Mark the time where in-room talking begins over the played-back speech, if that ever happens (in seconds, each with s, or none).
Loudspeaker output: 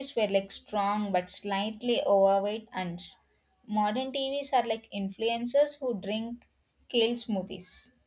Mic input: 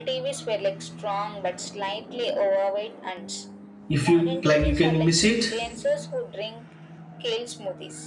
3.9 s